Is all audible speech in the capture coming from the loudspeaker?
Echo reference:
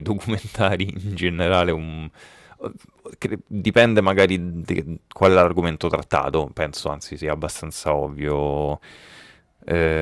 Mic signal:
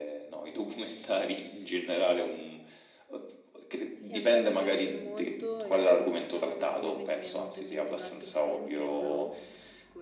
No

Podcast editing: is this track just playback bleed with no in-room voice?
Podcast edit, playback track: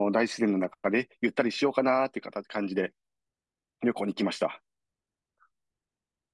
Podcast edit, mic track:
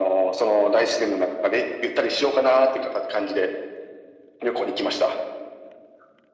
Yes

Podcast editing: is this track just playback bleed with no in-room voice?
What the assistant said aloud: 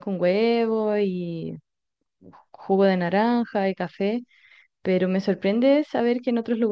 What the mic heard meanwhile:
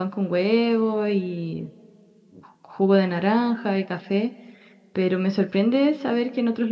Yes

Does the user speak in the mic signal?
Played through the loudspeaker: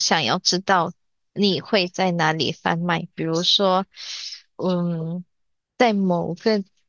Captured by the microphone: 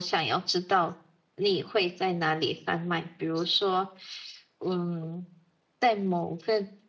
No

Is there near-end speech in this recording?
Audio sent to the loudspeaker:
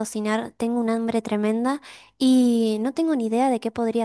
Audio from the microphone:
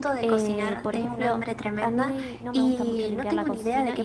Yes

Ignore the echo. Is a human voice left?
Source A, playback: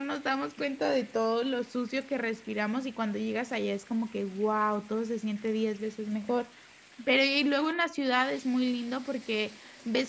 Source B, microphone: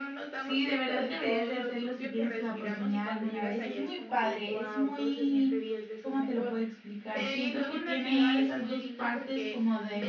Yes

